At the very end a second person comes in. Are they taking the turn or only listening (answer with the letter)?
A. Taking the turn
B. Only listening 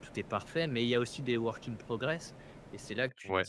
B